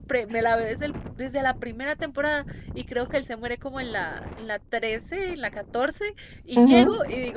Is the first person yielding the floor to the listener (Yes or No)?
No